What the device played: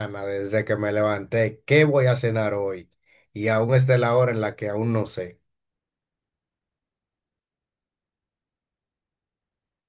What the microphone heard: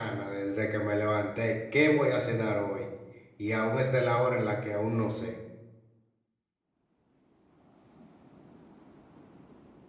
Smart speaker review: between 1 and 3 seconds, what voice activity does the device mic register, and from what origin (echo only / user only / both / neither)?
echo only